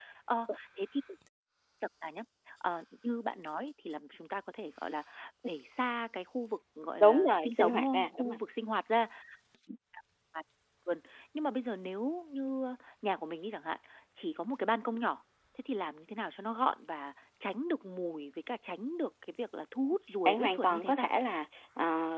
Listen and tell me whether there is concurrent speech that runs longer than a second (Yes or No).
Yes